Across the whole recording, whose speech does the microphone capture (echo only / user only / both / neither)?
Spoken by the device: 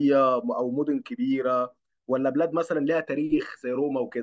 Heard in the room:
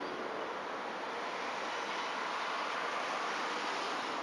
neither